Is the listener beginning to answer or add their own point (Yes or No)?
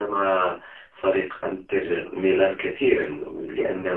No